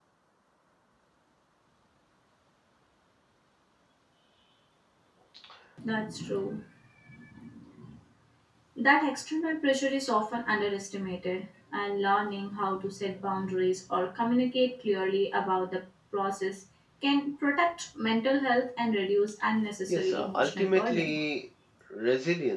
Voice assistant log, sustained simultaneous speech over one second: present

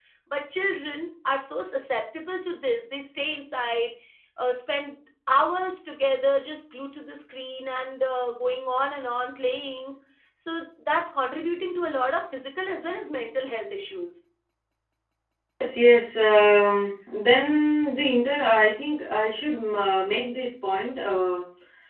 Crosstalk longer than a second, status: none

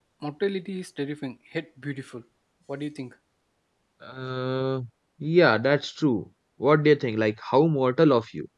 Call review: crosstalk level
none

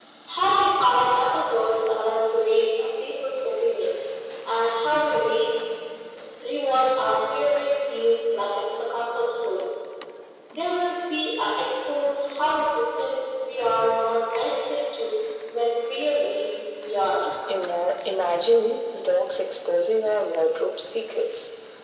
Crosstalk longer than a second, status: none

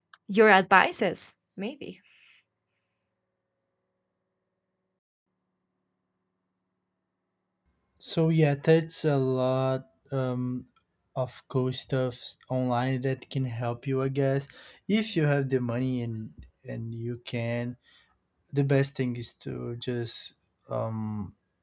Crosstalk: none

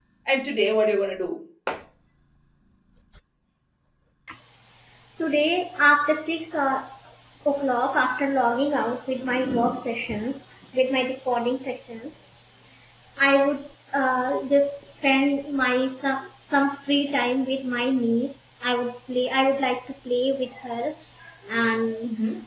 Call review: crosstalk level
none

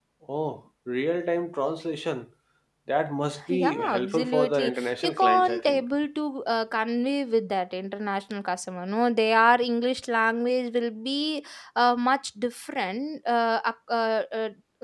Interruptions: present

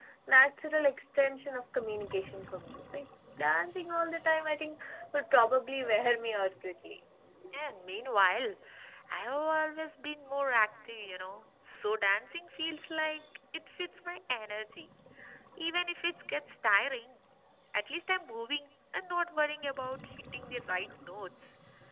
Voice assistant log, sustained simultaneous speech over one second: none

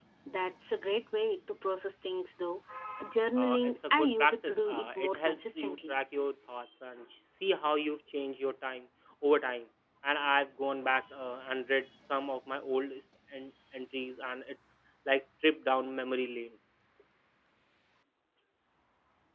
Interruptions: present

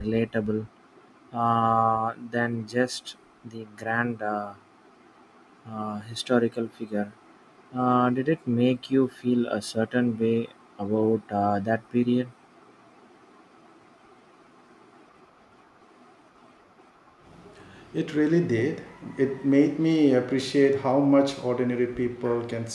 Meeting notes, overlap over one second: none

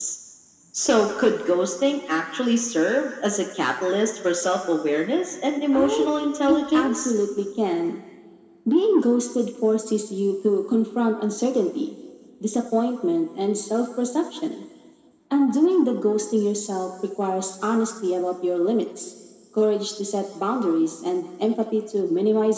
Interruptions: present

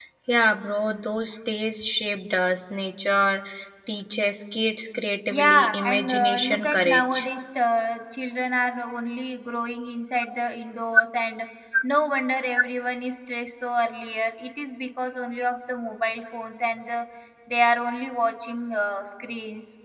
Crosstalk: present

